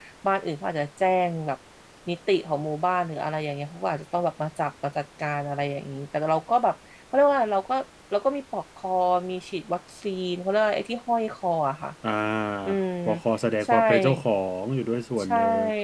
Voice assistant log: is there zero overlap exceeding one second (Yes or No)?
Yes